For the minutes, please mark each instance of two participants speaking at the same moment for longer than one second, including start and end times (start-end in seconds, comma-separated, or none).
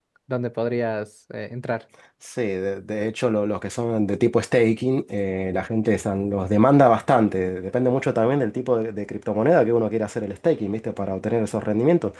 none